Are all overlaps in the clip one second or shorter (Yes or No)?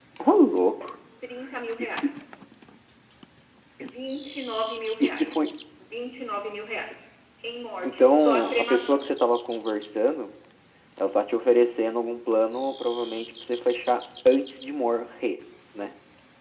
No